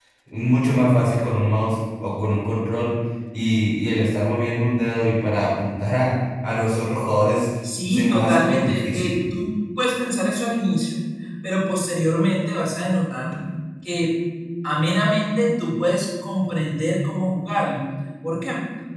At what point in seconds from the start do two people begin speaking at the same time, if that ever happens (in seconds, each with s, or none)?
7.9 s